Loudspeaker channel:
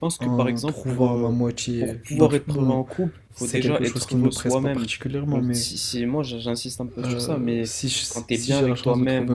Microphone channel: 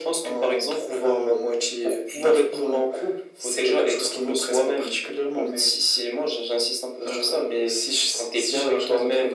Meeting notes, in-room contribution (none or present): none